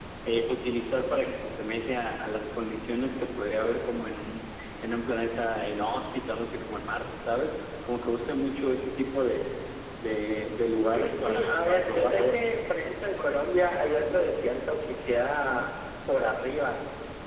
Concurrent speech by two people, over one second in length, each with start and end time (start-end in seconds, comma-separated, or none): 10.9-12.5